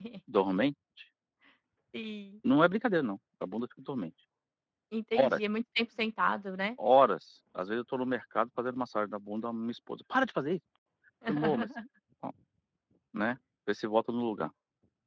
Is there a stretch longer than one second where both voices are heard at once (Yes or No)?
No